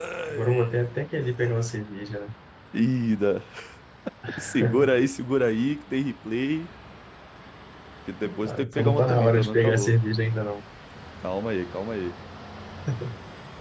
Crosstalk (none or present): present